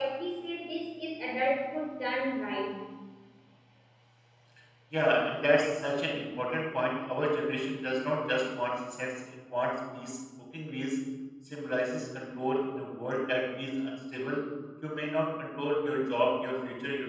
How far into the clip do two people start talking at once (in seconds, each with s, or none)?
none